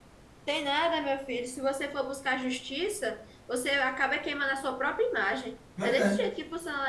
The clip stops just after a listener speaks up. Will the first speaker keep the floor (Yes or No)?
Yes